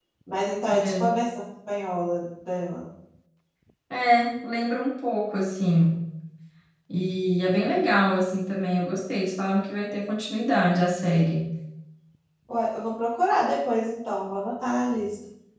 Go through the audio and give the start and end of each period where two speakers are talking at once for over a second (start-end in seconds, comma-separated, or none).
none